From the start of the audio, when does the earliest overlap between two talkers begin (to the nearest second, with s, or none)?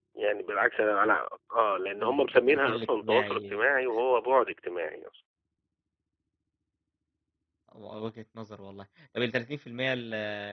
2 s